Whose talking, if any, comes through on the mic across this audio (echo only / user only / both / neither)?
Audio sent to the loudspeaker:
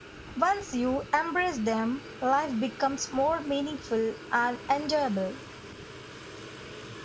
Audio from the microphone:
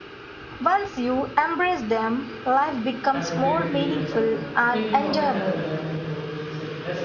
both